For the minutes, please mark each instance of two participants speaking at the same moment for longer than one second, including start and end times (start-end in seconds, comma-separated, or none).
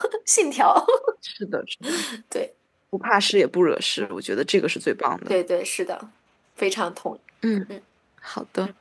none